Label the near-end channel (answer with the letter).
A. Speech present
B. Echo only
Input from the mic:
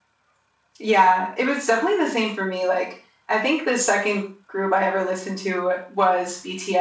B